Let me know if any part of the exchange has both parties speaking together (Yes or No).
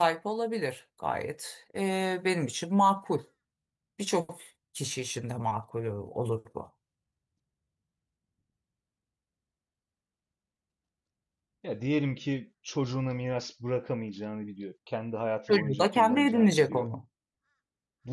Yes